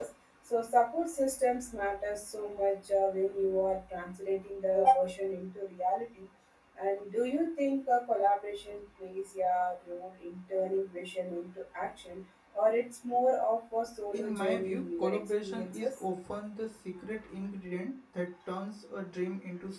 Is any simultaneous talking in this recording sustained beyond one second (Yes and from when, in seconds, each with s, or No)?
Yes, from 14.1 s